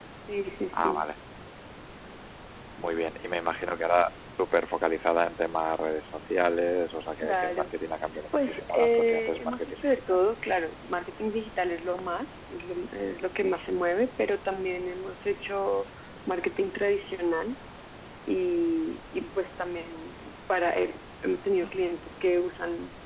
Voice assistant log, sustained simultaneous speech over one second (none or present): present